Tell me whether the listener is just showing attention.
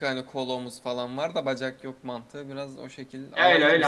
No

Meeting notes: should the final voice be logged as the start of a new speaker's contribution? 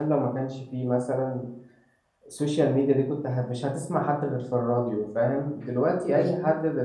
No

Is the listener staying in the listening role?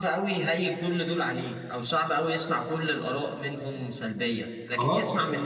Yes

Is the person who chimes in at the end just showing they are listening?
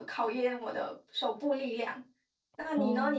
Yes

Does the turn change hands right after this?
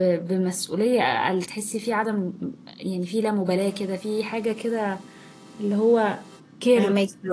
Yes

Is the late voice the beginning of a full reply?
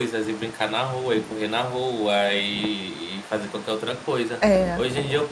No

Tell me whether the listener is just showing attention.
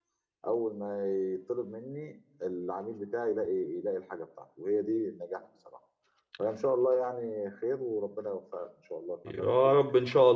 No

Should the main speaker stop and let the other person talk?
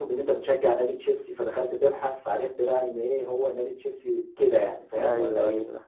Yes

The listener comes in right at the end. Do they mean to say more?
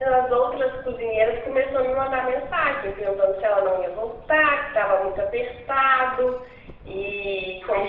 Yes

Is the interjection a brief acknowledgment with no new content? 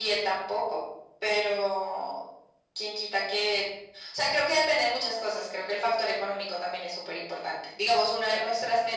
Yes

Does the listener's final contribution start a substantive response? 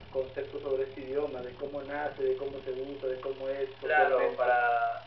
Yes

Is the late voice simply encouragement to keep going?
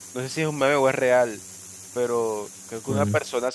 Yes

